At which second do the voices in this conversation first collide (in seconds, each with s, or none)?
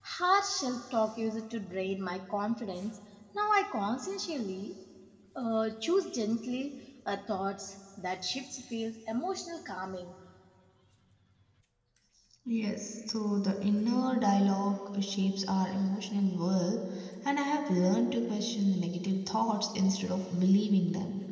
none